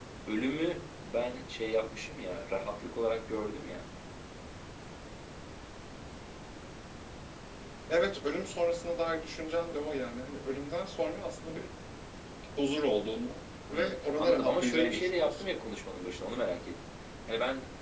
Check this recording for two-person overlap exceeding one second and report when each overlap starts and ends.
13.7-15.5

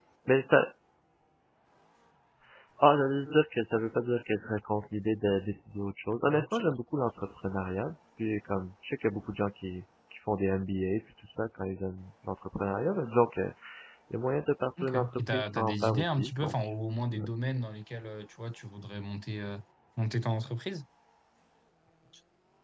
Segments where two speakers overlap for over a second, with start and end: 14.8-16.5

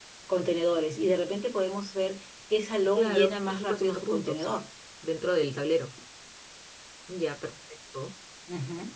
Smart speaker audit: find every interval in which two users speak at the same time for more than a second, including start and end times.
3.0-4.5

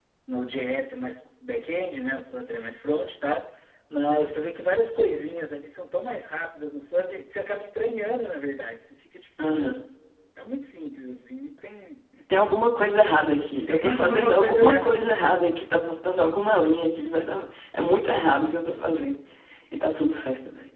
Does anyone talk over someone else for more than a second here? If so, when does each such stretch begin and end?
13.7-15.0

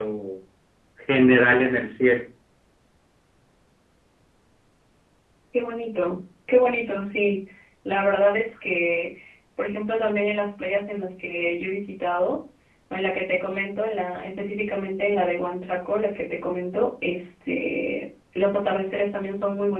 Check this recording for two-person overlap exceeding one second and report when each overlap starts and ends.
none

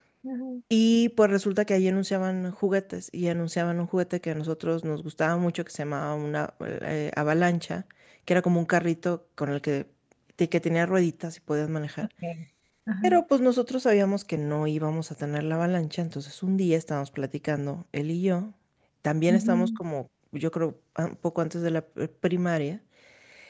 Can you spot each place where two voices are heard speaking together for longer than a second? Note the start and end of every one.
none

